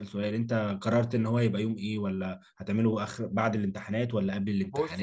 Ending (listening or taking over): taking over